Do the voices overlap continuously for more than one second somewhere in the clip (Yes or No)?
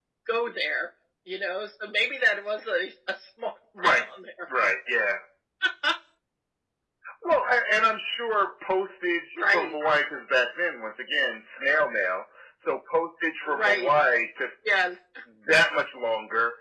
No